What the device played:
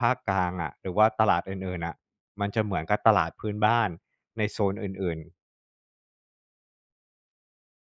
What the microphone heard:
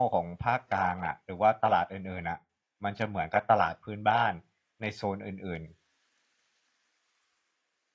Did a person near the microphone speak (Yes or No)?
No